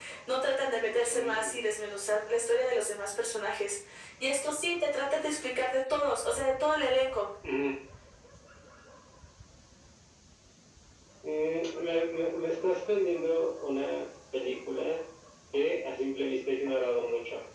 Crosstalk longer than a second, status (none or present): none